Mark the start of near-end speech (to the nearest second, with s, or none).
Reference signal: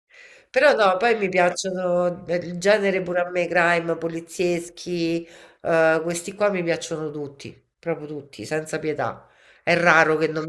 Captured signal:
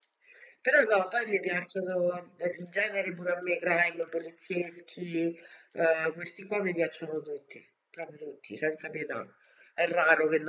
none